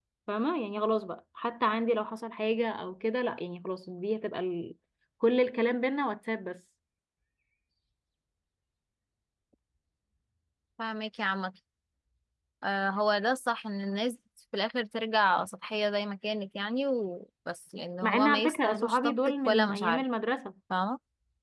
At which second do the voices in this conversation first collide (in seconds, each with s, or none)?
18.0 s